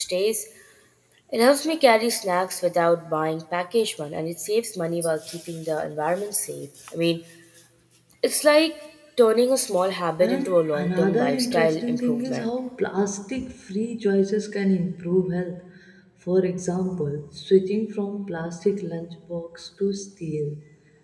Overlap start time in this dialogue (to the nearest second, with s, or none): 10 s